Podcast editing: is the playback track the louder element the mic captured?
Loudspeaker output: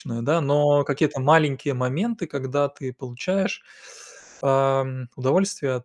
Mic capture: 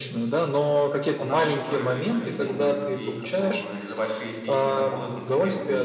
Yes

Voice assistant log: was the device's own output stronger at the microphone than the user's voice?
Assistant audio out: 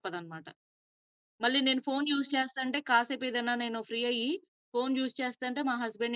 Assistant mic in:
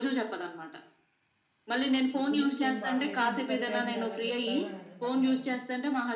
Yes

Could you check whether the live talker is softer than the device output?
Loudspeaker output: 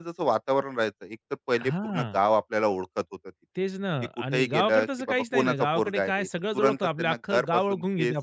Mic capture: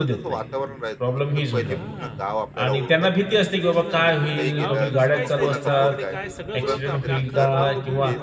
No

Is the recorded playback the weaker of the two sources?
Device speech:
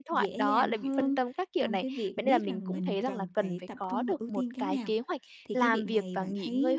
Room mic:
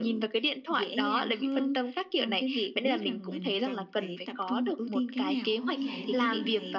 No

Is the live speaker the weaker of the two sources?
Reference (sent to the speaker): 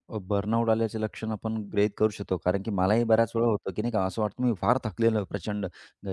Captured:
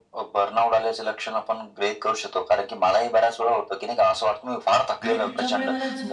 Yes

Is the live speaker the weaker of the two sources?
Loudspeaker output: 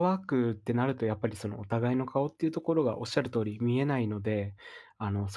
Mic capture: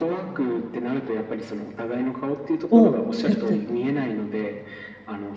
No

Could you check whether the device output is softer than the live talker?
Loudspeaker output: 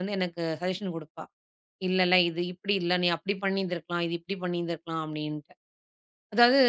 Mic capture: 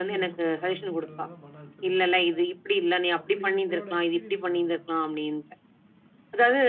No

